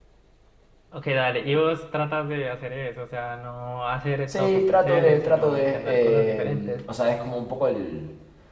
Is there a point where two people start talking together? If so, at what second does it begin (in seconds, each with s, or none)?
4.3 s